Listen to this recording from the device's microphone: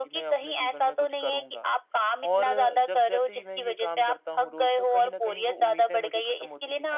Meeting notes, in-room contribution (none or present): present